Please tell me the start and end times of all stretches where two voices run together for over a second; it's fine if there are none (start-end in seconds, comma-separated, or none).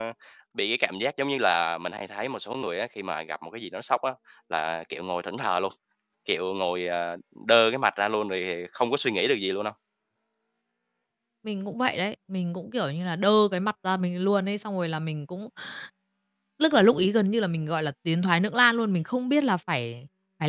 none